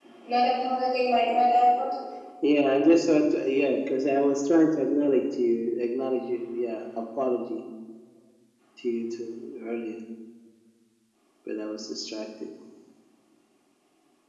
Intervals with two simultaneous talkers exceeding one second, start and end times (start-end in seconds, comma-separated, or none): none